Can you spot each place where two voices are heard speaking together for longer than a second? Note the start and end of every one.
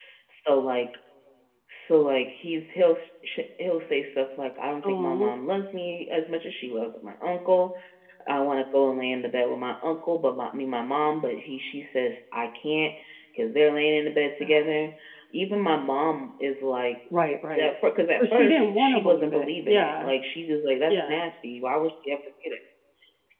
18.2-20.1

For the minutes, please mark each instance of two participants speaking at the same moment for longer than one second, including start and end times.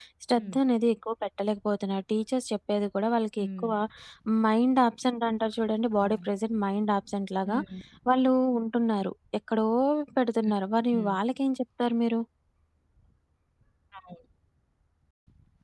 none

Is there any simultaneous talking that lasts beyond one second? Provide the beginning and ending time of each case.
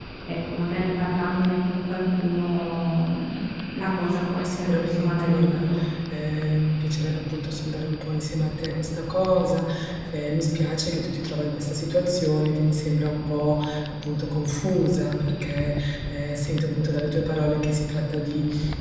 4.4-5.7

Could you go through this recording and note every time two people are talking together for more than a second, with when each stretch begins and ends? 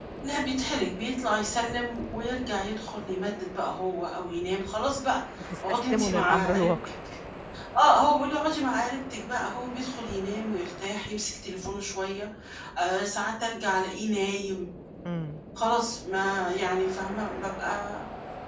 5.7-6.9

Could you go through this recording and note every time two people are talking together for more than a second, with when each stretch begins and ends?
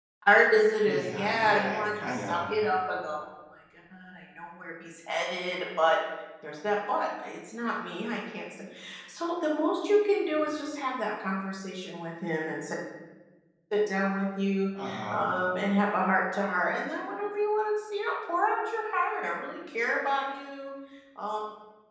0.9-2.5

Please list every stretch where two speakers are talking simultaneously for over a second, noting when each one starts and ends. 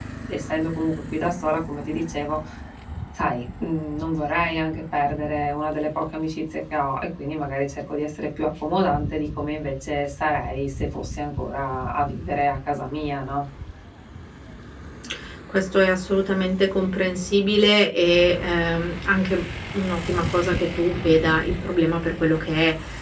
none

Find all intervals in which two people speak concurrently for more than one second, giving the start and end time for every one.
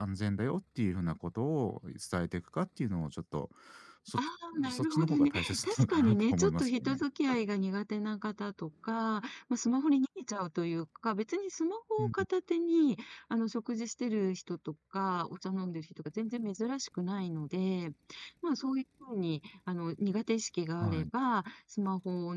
4.7-6.9

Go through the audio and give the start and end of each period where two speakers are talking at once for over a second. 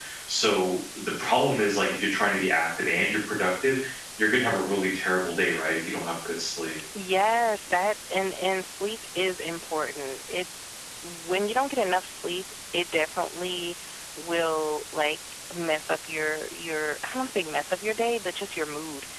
none

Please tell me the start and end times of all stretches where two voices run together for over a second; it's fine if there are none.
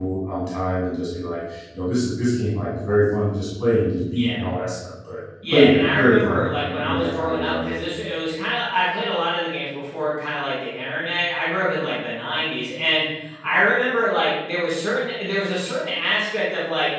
5.5-7.7

